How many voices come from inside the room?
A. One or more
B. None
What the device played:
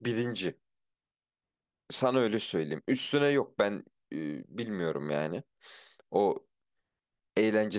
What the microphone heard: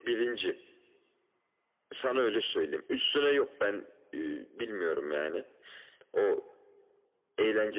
B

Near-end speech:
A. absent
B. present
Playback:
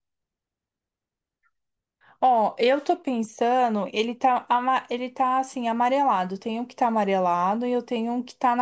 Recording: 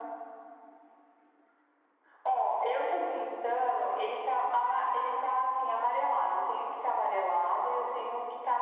A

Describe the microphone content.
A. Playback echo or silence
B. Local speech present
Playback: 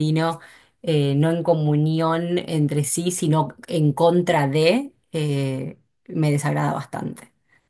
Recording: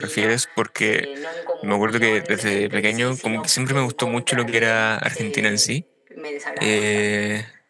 B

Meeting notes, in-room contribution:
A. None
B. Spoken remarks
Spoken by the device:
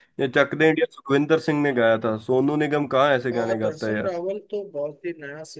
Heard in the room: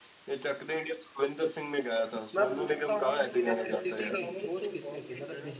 B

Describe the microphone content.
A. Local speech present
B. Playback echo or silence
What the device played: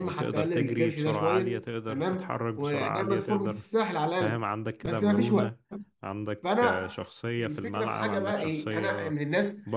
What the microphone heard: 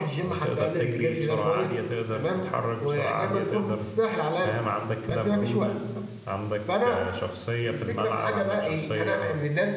B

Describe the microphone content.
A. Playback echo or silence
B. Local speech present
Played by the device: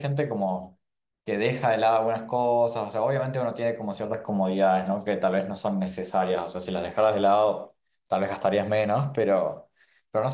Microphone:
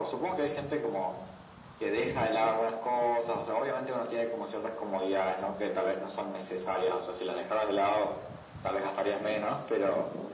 A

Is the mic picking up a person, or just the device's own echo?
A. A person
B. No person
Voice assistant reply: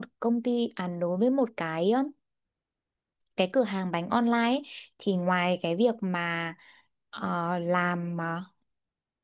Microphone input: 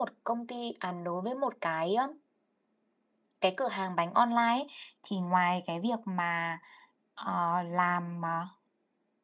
B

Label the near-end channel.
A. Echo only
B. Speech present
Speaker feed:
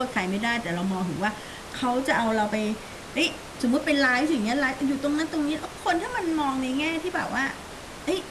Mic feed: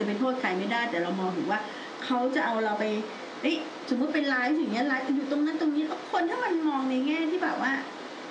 A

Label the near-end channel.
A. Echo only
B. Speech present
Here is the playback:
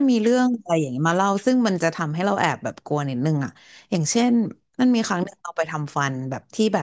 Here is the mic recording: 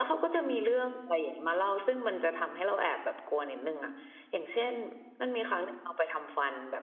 A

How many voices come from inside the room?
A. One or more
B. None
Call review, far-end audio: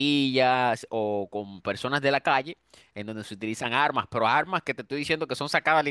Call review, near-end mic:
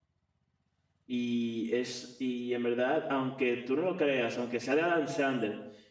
A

